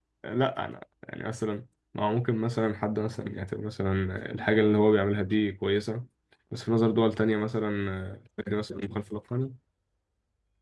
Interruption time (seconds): none

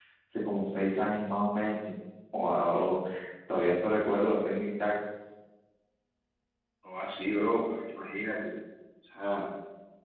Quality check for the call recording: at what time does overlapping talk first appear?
none

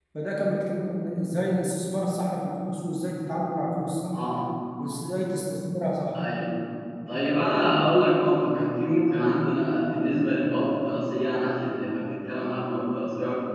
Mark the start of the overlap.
none

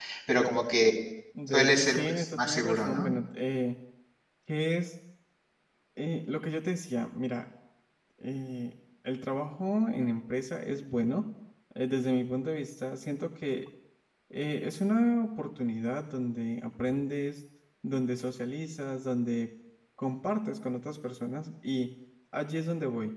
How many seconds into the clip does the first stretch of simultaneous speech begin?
1.5 s

